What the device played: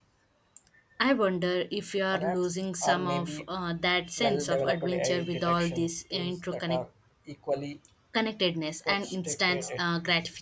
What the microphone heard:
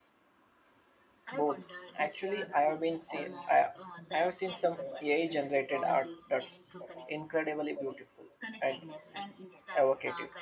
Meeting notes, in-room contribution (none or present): present